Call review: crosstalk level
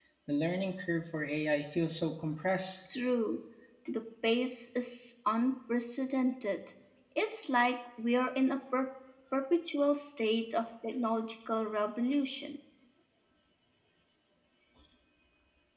none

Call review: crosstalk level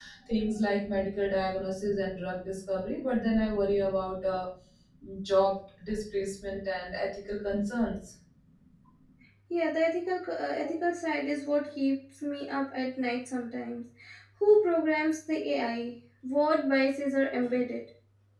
none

